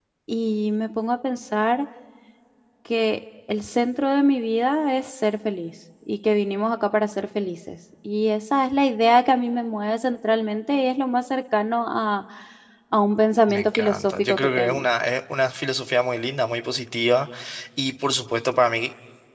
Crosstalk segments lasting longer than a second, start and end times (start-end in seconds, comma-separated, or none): 13.5-14.9